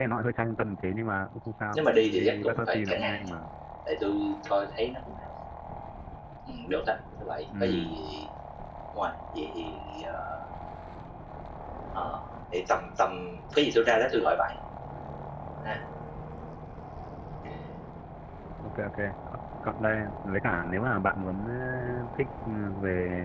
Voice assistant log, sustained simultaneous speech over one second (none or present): present